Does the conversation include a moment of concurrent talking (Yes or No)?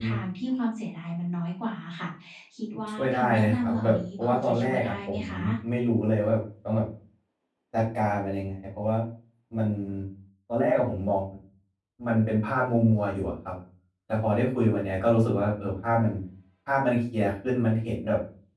Yes